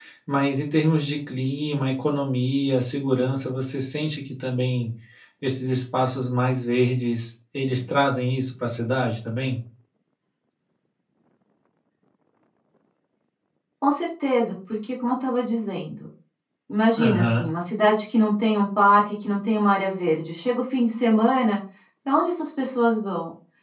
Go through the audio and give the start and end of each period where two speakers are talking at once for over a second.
none

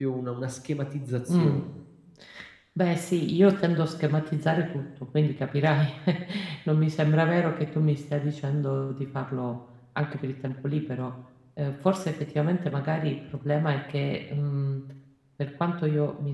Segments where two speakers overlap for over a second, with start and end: none

